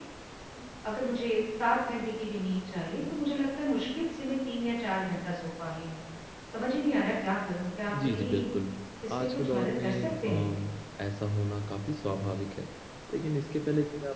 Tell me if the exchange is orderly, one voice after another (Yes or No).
No